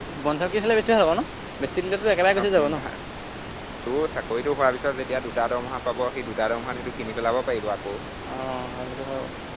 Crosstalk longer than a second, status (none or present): none